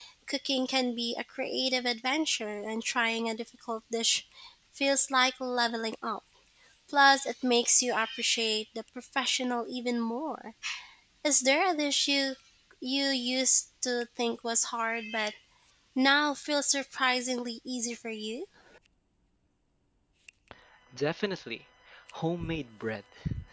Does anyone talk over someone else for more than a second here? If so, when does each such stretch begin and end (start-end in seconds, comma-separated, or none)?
none